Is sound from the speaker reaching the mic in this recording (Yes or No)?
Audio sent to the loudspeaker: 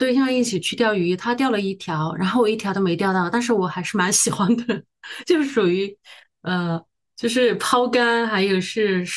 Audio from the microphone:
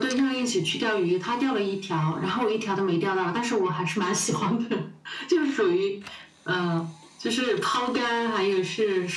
Yes